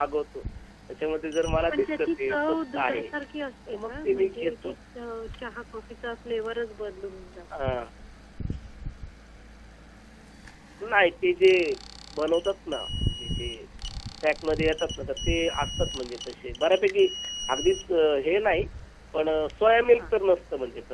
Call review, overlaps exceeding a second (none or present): present